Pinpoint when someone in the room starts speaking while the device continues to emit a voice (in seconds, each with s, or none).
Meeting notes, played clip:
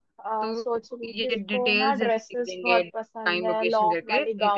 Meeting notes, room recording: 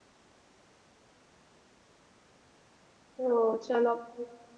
3.1 s